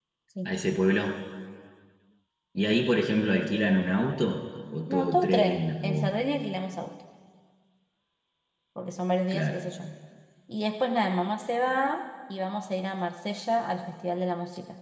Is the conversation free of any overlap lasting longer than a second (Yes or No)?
No